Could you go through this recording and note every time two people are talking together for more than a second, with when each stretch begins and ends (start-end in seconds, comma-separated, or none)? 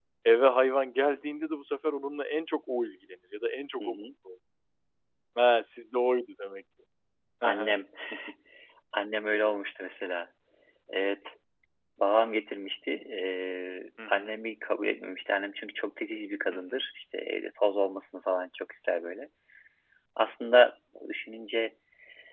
none